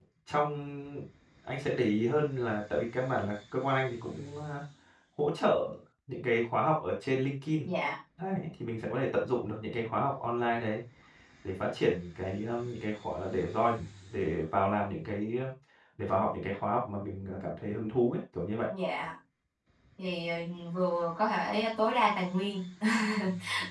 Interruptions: none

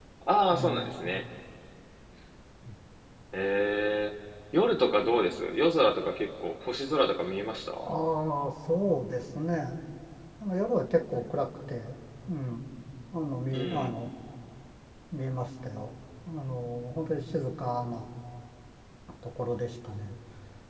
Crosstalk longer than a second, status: none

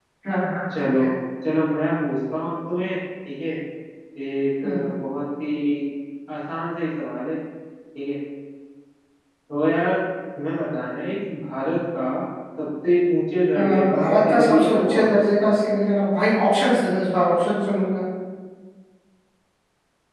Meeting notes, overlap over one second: present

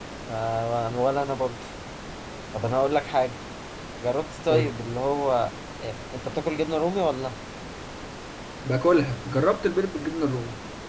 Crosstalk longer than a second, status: none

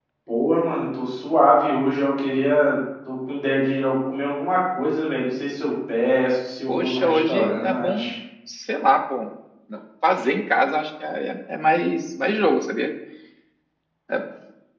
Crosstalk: present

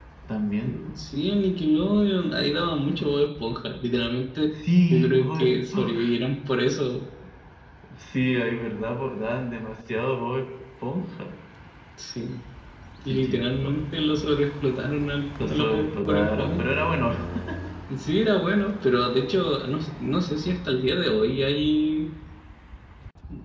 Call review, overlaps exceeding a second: present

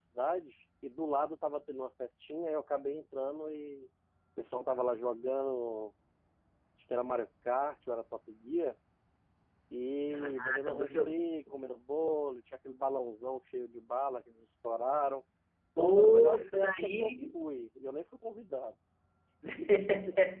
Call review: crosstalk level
present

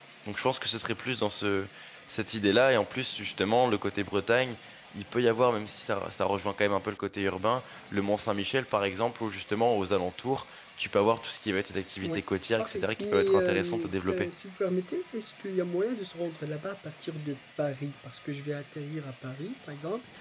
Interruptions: present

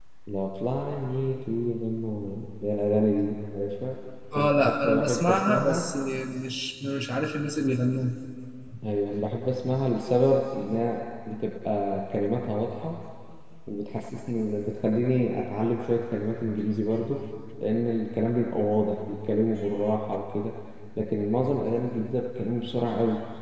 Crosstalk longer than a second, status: present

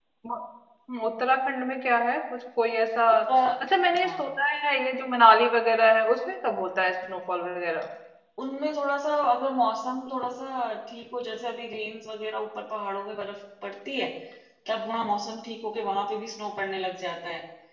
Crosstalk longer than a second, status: none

